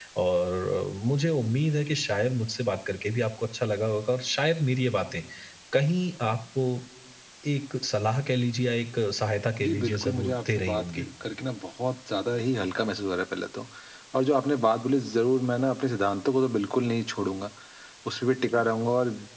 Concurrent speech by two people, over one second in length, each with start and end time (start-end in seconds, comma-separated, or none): 9.6-11.0